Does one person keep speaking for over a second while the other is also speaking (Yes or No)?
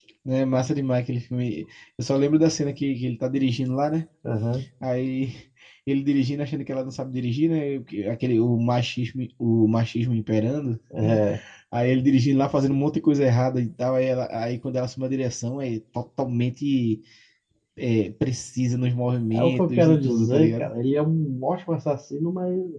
Yes